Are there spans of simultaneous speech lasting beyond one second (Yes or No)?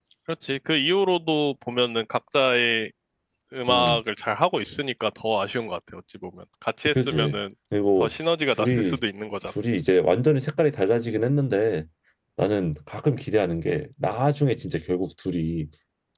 No